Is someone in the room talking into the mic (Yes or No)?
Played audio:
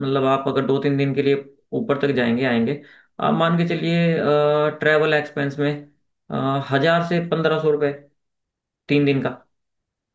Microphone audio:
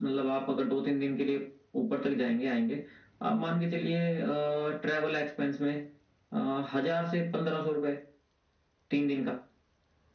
No